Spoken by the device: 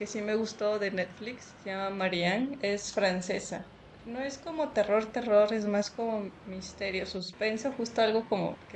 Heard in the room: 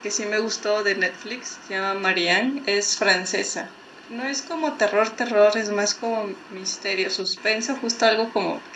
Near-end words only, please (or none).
none